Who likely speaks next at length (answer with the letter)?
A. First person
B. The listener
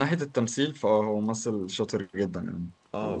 B